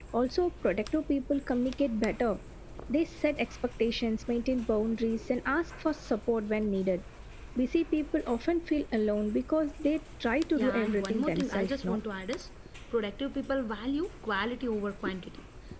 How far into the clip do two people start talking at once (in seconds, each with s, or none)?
10.6 s